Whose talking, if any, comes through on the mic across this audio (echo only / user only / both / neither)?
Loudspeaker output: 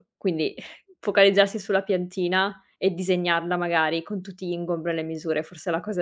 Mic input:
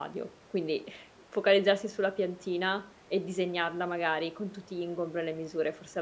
echo only